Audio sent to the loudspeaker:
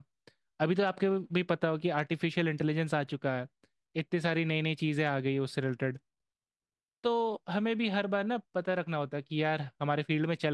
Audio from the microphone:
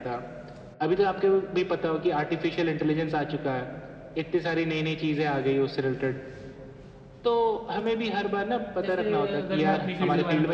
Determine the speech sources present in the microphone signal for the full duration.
both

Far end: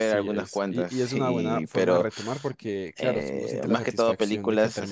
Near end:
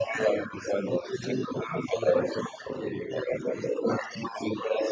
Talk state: both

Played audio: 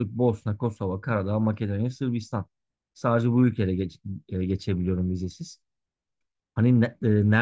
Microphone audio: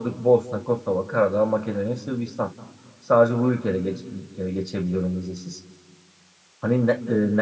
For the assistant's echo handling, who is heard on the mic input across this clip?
echo only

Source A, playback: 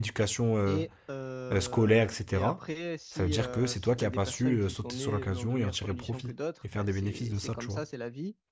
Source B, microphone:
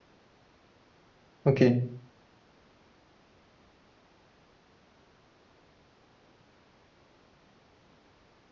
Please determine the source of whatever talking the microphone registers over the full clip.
user only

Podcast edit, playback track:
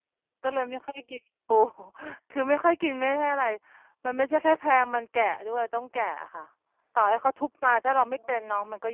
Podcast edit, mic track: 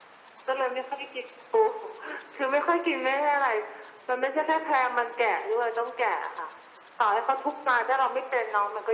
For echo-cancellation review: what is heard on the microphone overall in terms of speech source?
echo only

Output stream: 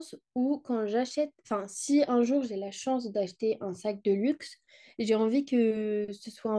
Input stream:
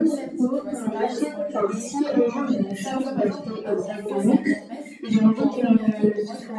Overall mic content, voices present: both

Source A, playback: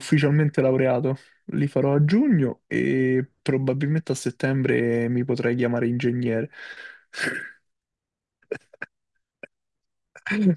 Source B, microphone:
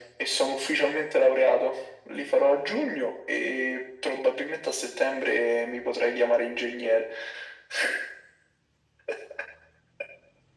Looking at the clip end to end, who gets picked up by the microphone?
echo only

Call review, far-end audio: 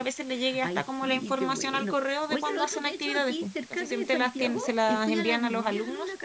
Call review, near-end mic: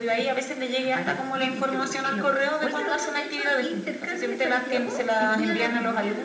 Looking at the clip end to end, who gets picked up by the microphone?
echo only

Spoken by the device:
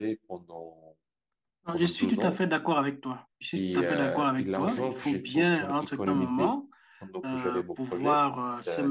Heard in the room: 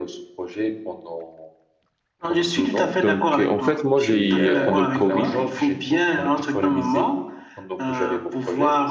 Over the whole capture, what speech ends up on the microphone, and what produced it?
both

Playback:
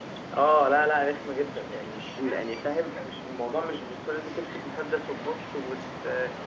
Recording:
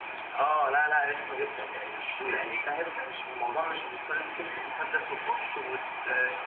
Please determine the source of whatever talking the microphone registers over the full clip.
echo only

